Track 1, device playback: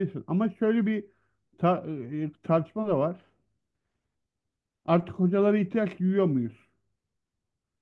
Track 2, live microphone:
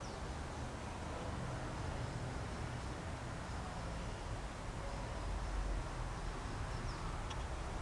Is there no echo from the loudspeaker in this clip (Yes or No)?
Yes